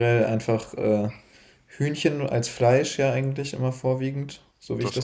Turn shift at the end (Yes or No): No